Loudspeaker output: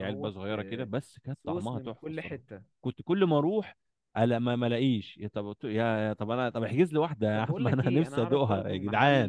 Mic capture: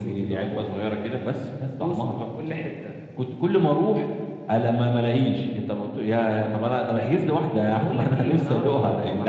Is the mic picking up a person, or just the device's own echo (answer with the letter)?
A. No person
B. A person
A